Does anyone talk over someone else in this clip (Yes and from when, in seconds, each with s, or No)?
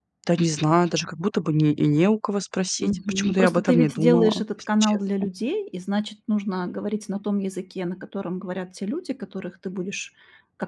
Yes, from 2.8 s